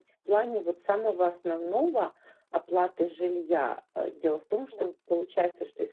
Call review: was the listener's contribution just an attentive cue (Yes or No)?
Yes